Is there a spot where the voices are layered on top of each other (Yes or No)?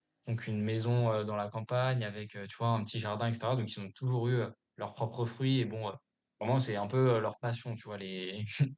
No